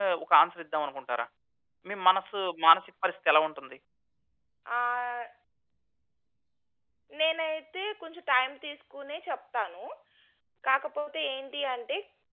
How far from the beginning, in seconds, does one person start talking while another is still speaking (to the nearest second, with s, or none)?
none